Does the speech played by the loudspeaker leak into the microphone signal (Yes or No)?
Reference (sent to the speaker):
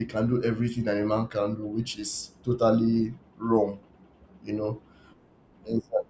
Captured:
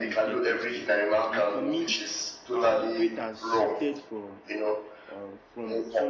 Yes